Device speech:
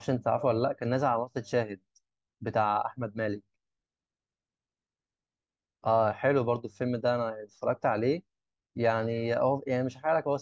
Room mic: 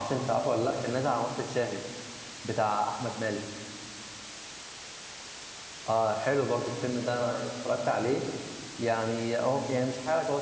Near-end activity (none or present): none